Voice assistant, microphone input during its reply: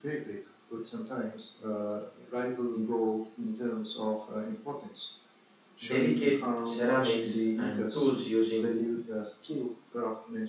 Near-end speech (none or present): present